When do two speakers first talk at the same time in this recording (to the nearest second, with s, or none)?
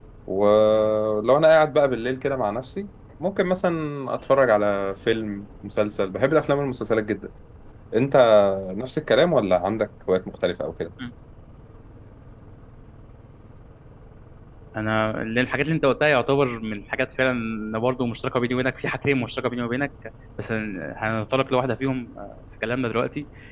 none